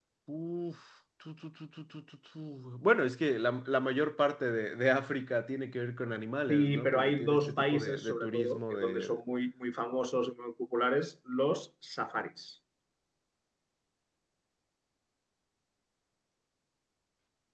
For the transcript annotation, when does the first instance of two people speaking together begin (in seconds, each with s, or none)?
6.5 s